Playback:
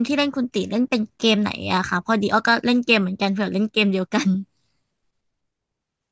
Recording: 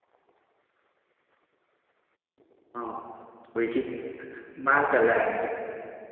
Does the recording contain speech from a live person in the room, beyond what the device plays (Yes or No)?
Yes